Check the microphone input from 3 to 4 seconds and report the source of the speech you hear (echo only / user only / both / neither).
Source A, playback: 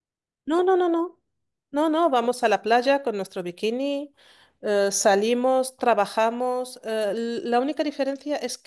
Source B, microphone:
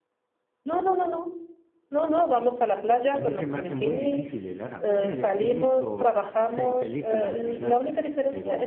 both